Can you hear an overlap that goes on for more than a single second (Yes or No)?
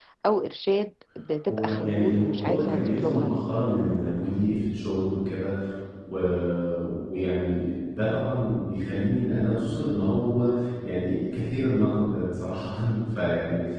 Yes